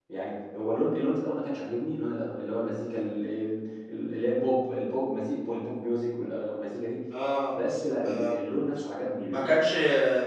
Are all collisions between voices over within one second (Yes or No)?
Yes